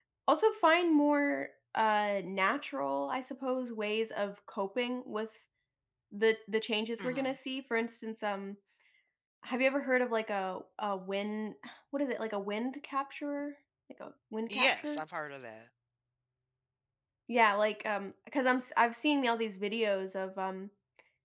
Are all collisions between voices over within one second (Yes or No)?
Yes